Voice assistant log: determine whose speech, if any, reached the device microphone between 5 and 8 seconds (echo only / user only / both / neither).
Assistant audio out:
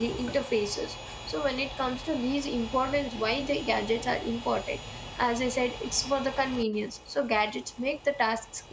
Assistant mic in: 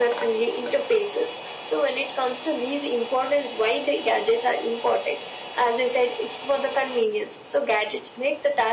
echo only